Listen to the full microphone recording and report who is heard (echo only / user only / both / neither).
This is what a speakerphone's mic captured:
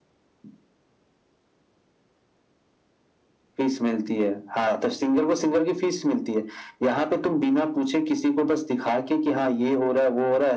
echo only